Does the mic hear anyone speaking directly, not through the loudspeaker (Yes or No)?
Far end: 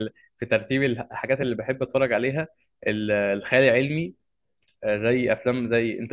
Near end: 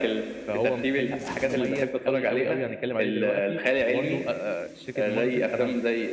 Yes